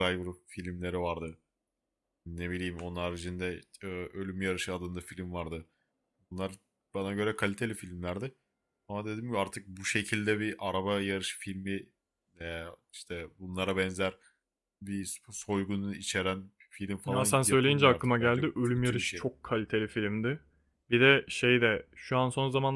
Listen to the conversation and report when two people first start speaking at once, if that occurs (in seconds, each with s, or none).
17.1 s